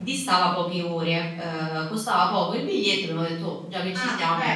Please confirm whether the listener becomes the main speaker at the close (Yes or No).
Yes